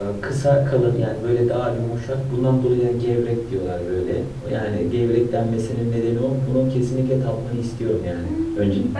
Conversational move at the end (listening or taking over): taking over